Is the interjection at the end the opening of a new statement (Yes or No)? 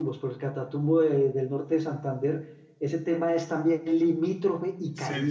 Yes